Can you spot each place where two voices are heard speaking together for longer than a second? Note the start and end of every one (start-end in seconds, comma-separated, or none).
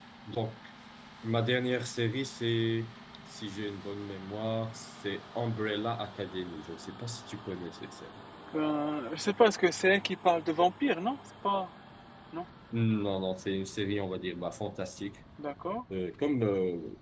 none